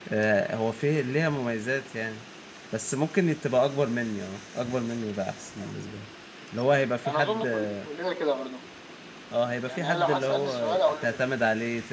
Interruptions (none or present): present